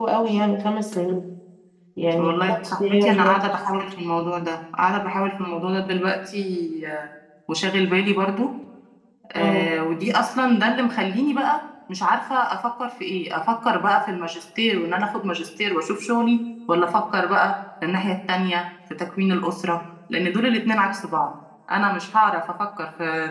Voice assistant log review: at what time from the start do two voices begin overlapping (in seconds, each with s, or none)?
2.2 s